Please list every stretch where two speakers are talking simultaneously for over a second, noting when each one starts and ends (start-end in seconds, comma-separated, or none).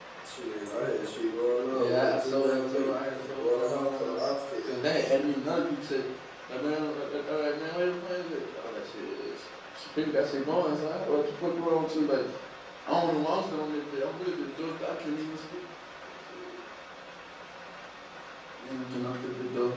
1.7-4.2